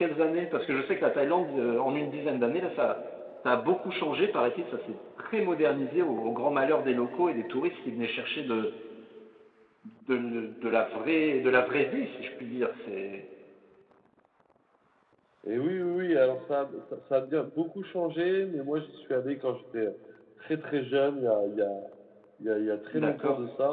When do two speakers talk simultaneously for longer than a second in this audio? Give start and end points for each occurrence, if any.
none

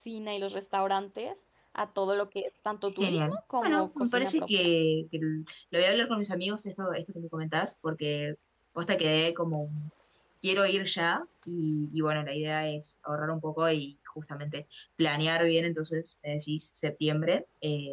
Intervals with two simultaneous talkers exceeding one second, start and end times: 3.0-4.7

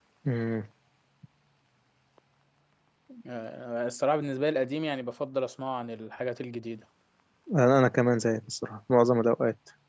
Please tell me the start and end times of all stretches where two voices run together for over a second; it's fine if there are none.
none

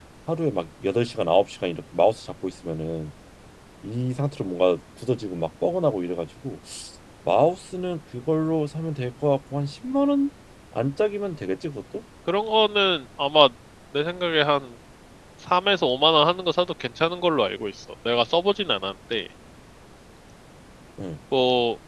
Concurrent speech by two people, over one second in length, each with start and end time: none

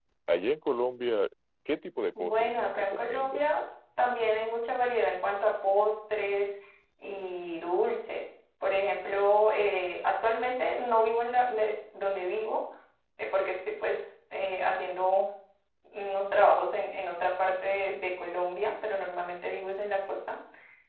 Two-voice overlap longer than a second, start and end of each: 2.1-3.5

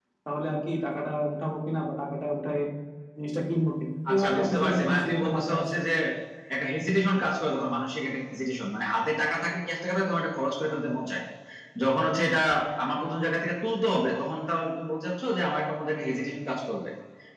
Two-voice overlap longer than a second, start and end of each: 4.1-5.8

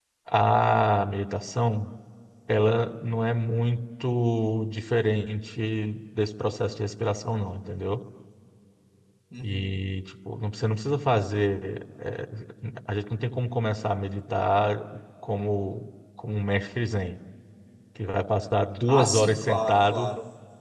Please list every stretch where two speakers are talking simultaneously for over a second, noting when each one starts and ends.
18.9-20.1

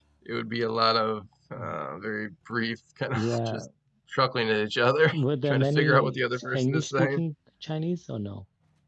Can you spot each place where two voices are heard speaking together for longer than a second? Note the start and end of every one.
5.1-7.2

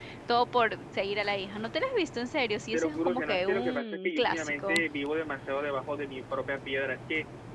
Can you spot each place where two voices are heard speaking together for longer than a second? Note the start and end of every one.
2.7-4.8

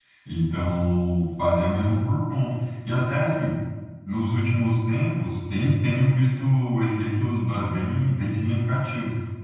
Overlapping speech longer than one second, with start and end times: none

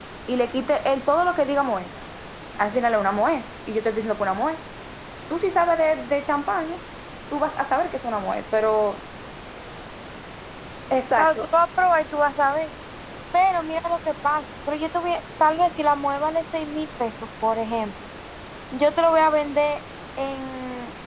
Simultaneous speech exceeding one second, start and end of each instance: none

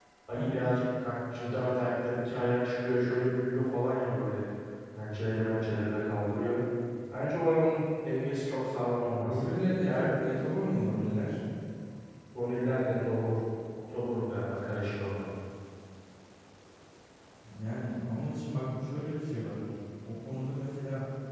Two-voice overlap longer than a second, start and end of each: none

